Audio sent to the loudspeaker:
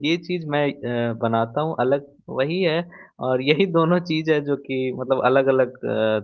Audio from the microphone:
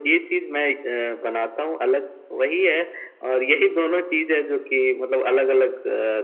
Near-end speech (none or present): none